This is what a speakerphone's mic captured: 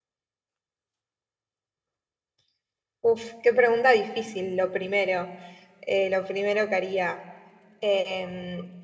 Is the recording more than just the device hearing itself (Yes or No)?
Yes